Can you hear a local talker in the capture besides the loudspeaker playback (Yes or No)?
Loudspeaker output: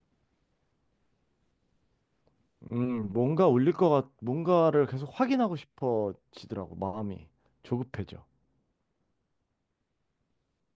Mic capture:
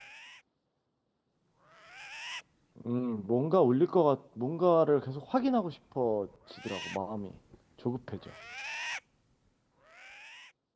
No